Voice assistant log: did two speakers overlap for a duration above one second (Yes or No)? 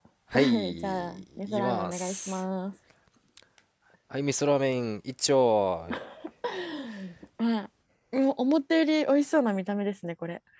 Yes